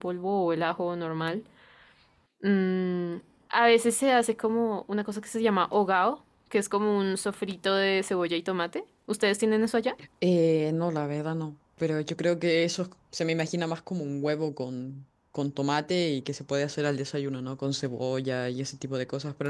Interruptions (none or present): none